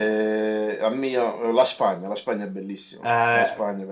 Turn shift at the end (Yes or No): Yes